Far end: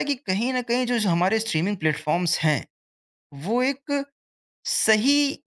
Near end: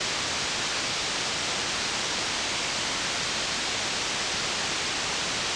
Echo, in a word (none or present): none